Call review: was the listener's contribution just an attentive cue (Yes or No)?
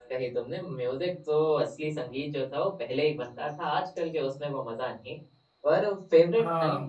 Yes